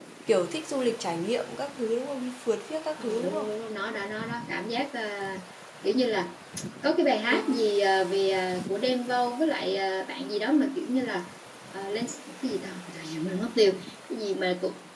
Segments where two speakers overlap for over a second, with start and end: none

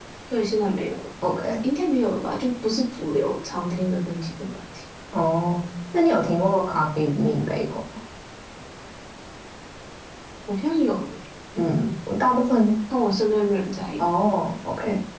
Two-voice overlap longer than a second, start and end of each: none

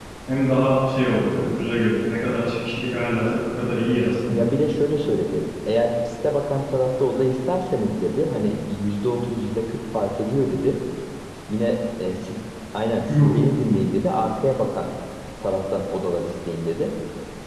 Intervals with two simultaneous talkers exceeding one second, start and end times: none

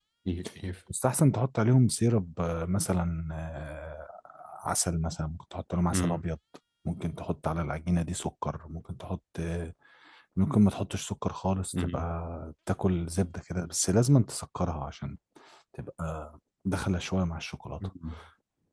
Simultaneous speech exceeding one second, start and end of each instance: none

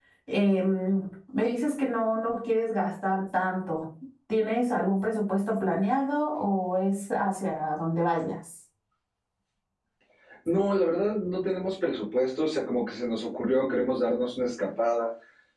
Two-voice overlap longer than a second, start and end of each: none

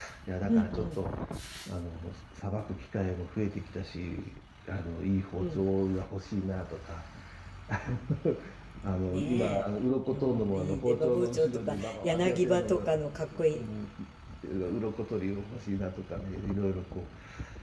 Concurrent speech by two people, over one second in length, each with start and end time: 10.1-12.8

